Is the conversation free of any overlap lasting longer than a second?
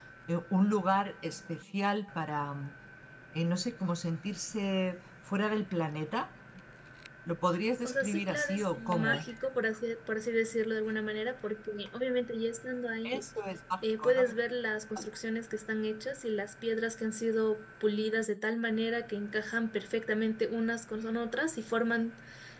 No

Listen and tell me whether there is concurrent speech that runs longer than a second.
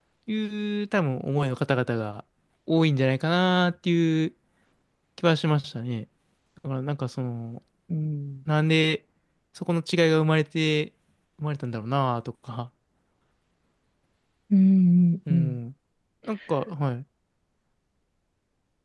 No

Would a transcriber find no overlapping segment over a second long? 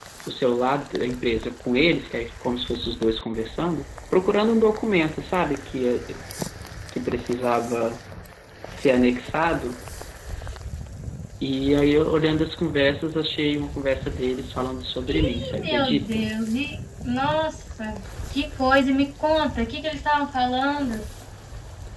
No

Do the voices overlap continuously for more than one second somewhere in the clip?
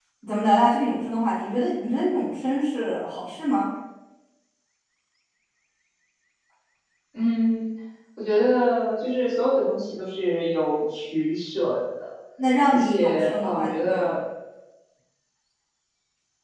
Yes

